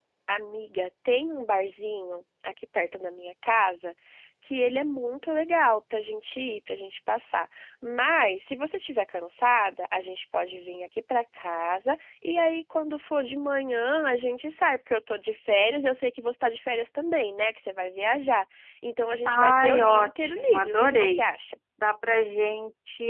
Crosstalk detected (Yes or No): Yes